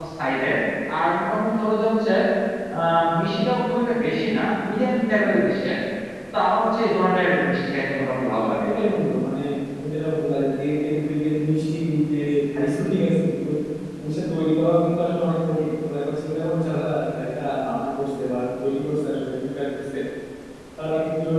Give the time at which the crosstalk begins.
none

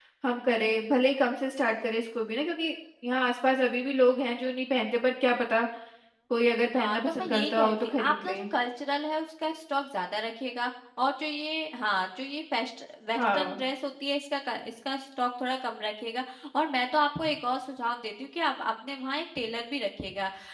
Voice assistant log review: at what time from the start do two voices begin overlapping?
6.7 s

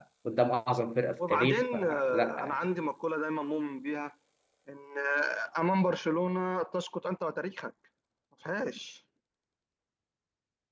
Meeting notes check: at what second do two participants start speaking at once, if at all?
1.2 s

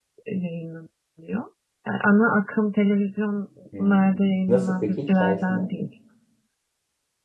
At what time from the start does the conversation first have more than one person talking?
3.7 s

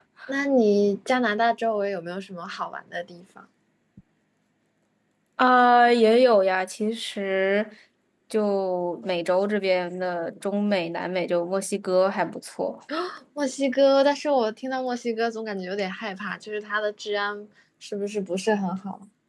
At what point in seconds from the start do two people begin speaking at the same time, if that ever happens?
none

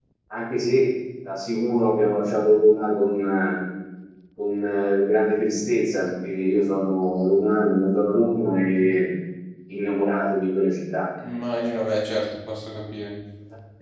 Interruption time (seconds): none

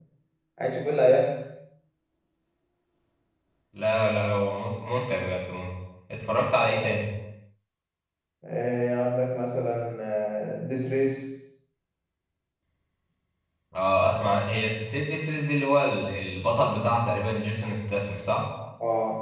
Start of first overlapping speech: none

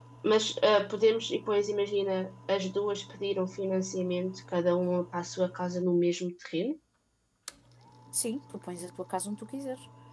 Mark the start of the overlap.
none

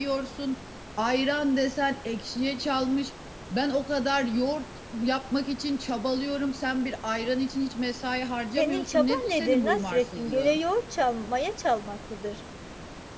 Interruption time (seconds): 8.6 s

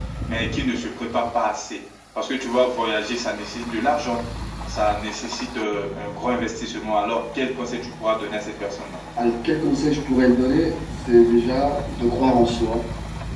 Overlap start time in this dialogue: none

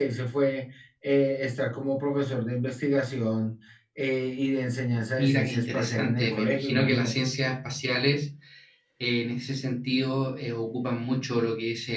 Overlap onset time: 5.2 s

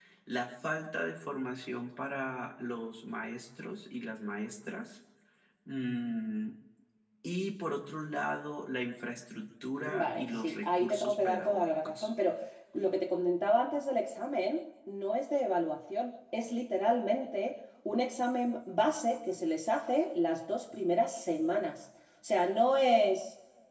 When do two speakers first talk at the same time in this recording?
9.8 s

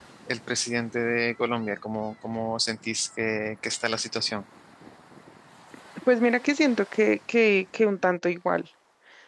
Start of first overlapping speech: none

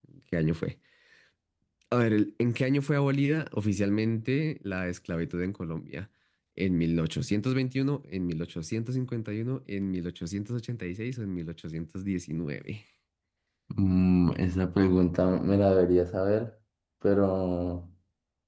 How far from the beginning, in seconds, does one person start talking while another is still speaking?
none

